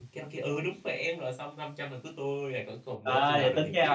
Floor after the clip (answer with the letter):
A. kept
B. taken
B